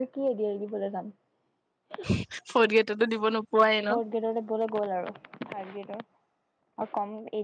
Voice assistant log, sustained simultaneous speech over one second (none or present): none